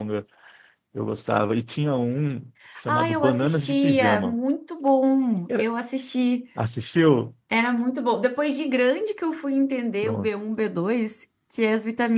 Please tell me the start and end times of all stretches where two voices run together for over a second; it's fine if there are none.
2.9-4.3

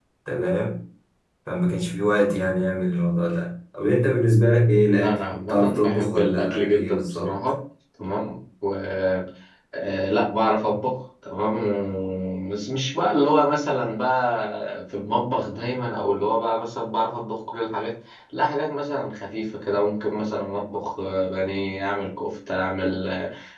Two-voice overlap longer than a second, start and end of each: 5.0-7.3

